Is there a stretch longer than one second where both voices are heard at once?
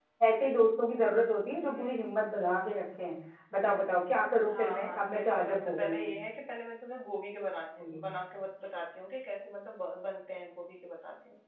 Yes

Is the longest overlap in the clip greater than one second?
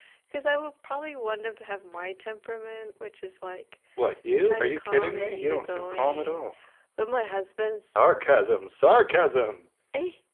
Yes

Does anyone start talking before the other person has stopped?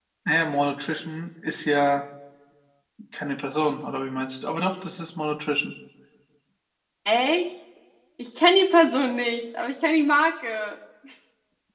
No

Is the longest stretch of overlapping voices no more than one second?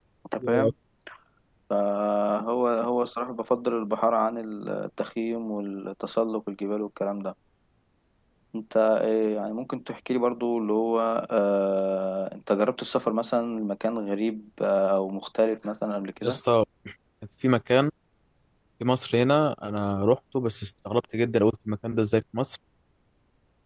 Yes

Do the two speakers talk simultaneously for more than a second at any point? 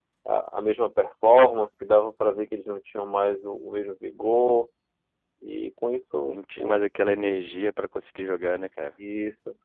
No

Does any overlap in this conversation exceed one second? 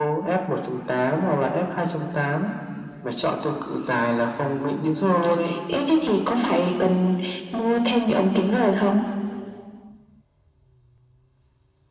No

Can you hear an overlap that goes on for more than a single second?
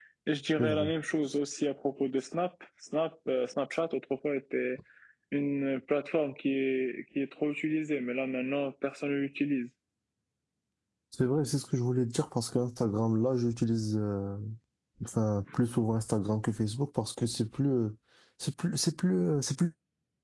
No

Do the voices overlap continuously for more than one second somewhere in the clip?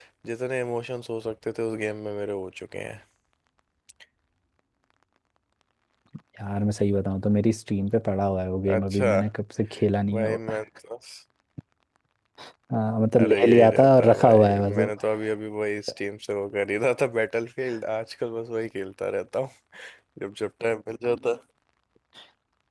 Yes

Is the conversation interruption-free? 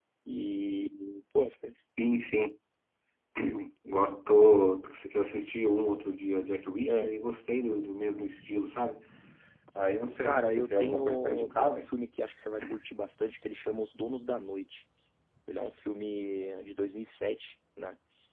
No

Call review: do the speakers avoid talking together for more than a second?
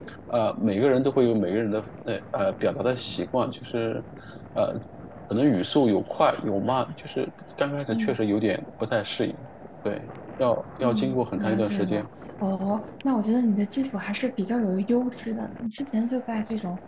No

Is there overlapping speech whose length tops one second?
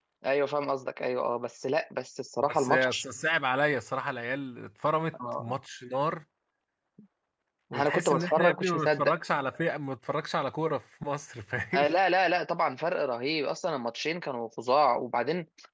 Yes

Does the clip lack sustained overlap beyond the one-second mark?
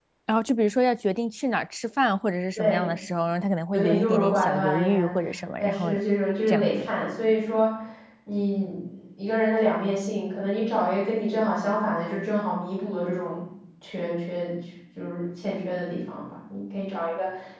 No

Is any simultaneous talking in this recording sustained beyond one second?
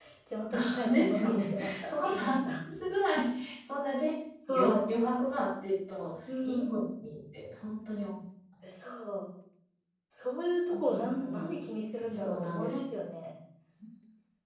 Yes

